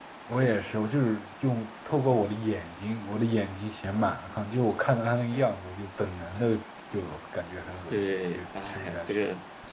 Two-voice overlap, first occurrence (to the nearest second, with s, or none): 8 s